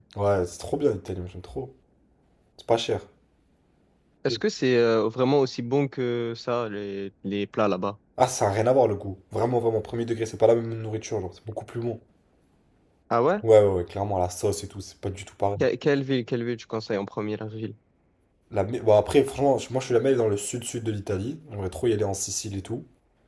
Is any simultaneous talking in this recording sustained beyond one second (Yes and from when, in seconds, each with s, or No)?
No